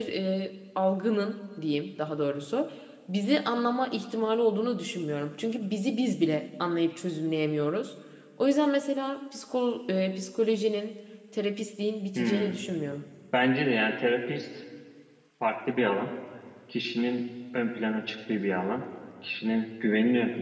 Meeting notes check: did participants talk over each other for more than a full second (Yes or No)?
No